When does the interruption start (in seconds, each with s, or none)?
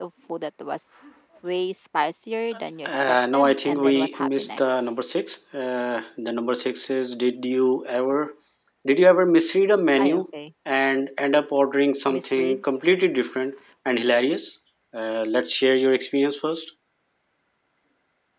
2.9 s